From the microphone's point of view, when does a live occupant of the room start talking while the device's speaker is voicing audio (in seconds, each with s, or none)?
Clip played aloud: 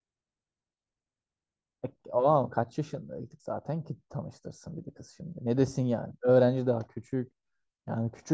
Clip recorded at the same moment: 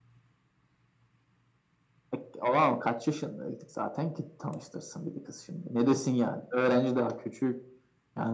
none